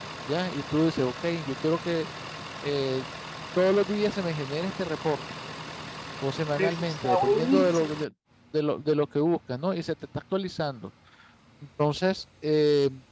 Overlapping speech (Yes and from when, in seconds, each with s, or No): Yes, from 6.5 s